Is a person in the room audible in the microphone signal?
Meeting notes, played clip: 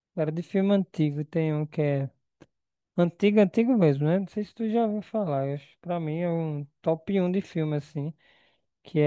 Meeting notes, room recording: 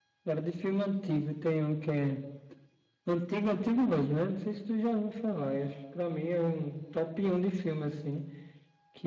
No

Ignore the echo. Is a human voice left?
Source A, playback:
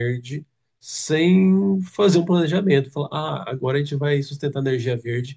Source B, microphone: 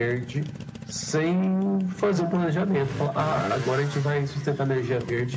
No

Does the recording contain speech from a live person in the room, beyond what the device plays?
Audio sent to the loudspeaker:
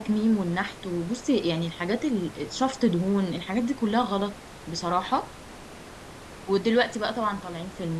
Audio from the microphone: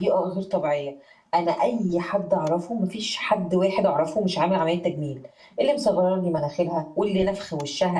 Yes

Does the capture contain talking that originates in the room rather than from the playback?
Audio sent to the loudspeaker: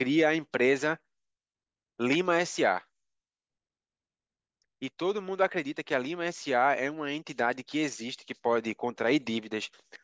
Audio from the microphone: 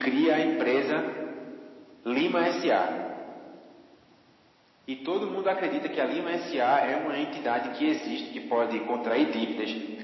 No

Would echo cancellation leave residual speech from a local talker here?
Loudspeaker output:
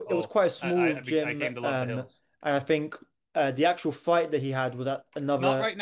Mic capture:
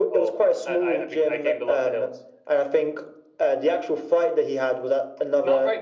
No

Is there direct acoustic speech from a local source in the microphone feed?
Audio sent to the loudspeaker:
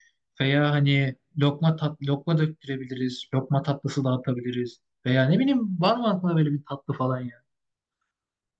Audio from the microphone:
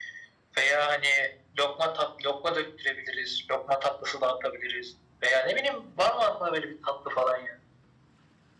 No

